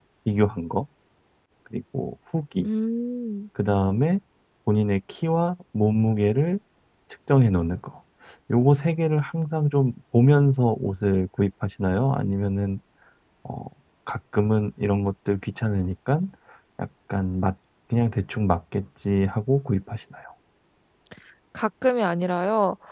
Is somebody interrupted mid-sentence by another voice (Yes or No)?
No